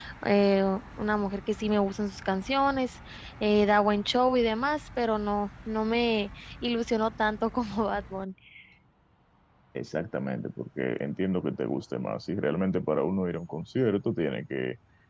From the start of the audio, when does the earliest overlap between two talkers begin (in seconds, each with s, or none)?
none